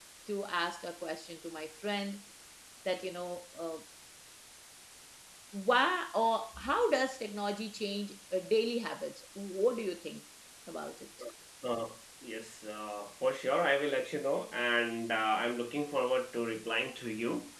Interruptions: none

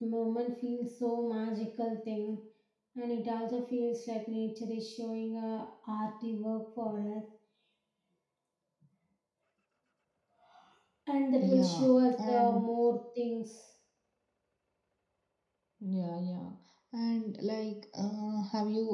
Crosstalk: present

